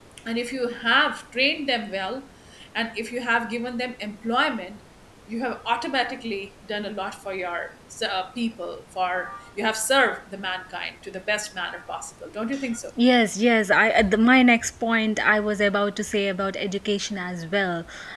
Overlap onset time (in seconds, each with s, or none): none